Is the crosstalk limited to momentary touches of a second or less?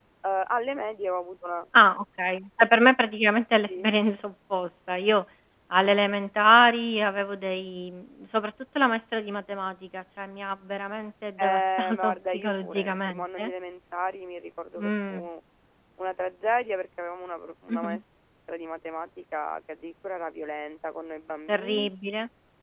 No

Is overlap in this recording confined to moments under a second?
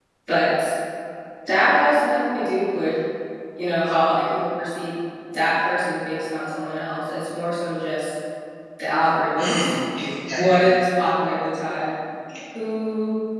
Yes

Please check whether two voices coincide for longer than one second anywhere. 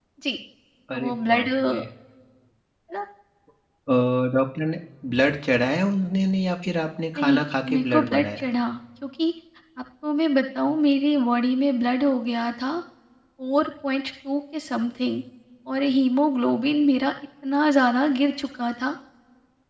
Yes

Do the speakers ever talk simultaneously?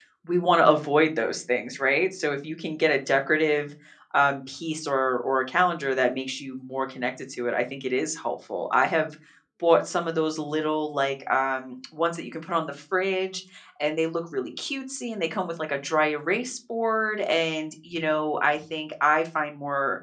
No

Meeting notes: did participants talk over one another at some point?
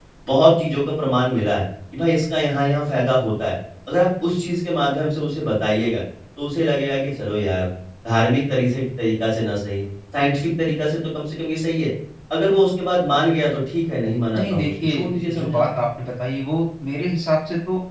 Yes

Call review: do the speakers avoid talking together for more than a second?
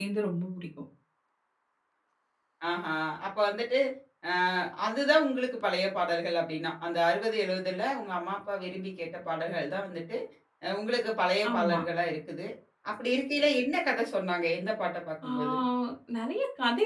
Yes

